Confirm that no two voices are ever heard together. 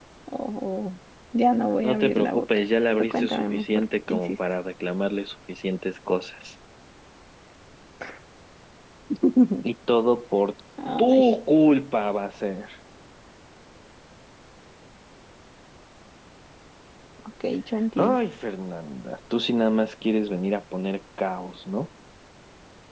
No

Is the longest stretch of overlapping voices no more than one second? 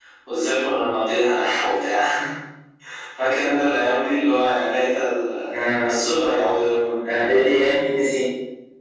Yes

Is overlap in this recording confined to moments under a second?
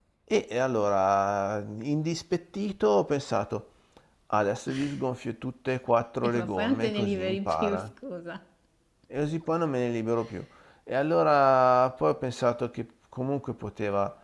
No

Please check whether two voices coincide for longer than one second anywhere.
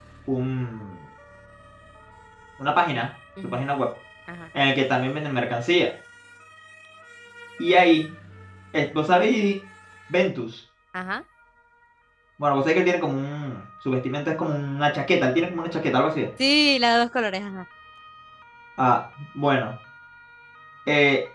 No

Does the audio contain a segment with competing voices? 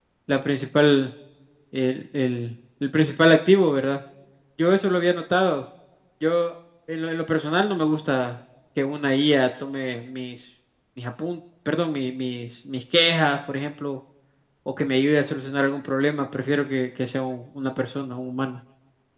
No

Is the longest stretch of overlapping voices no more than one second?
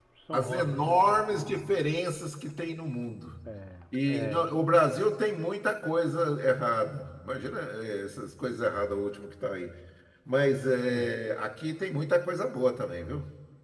No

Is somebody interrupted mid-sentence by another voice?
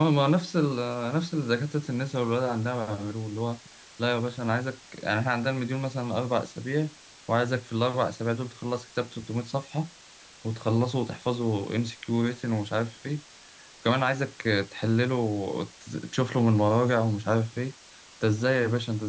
No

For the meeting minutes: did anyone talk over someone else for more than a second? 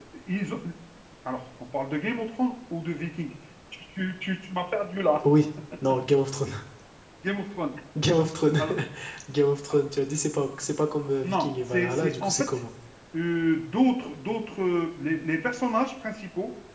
Yes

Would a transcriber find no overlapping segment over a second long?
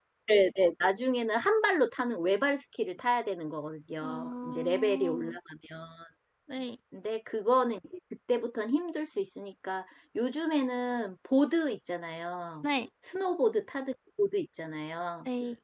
No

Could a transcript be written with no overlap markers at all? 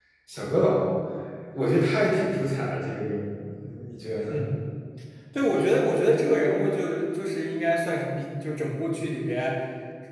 Yes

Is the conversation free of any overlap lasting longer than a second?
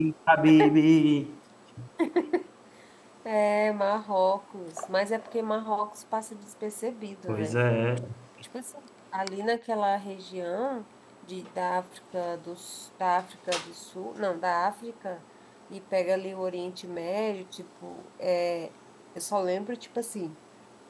Yes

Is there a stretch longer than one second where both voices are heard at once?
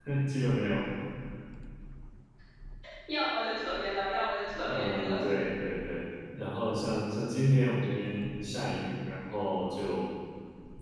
No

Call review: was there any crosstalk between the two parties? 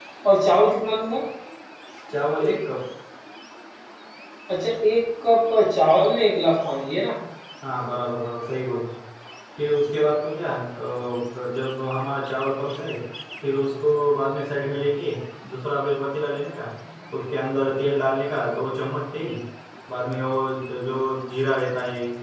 No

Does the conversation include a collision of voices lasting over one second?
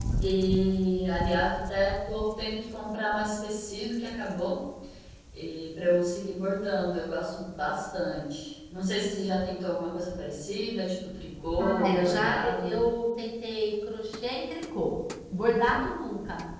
Yes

